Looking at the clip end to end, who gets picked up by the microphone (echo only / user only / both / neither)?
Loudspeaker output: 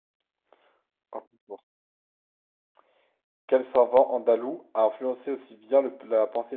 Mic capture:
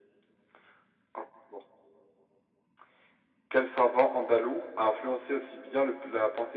echo only